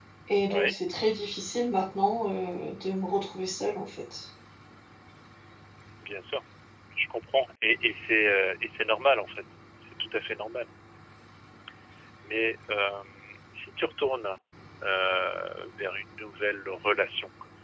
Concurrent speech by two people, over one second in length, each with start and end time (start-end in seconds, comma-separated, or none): none